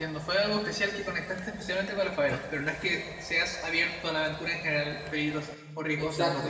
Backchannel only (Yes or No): No